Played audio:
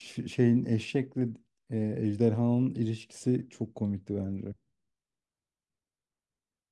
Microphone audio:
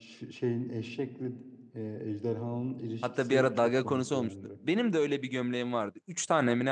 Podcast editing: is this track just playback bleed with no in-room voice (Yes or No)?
No